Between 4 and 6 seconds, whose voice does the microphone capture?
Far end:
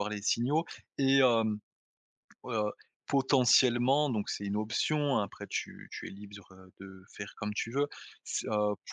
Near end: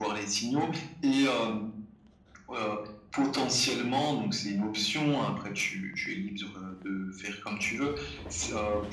echo only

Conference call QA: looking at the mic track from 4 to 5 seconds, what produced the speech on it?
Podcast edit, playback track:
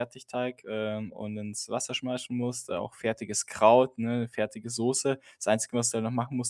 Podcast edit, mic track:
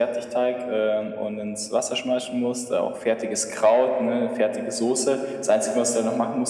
echo only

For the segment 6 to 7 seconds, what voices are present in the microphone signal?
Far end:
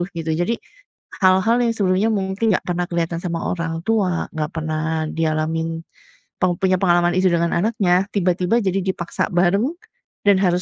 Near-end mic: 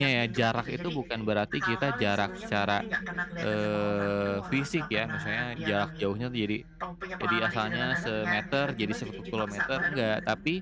both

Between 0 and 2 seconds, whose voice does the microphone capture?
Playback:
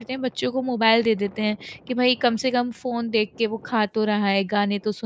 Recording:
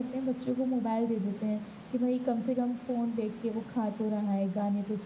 echo only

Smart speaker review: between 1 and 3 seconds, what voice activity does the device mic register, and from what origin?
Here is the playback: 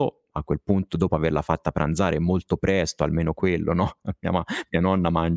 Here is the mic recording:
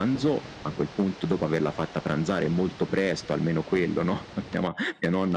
echo only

